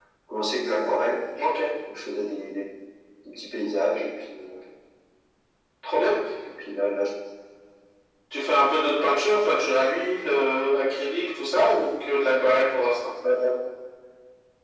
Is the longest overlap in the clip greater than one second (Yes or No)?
No